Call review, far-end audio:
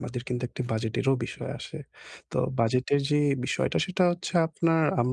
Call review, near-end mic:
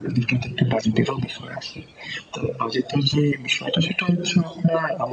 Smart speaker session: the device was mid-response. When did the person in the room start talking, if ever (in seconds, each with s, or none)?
none